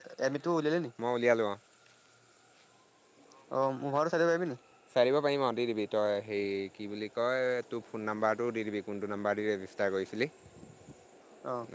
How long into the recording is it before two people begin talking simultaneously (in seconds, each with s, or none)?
none